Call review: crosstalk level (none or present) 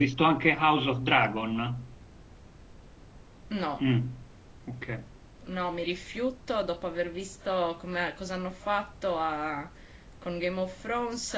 none